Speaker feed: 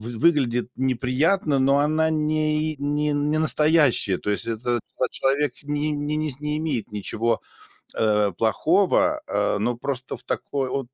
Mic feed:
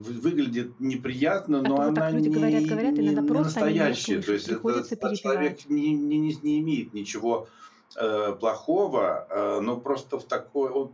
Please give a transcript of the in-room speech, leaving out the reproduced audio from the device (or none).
а то вот так люди говорят, говорят, иногда просто они не слышат, приходится перебивать.